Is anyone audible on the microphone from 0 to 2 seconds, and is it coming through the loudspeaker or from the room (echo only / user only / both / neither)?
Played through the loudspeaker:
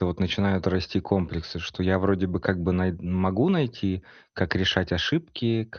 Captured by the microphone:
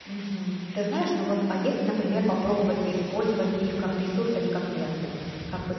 user only